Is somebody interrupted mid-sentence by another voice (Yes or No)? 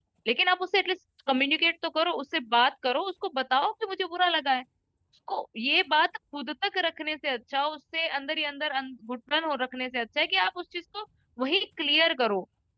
No